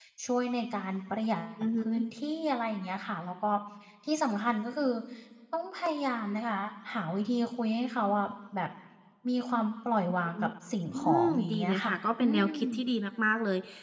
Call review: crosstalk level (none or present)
present